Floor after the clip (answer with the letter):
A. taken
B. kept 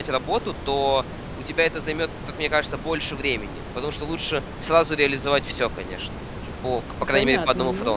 A